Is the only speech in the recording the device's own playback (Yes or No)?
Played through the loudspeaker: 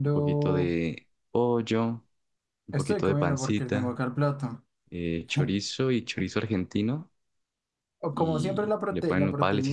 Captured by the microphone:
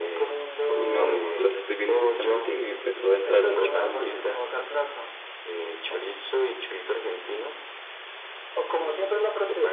No